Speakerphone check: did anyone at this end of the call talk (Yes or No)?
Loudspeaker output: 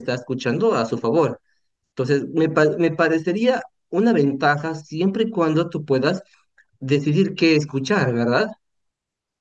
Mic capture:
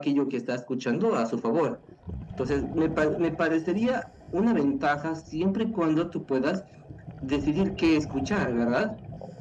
No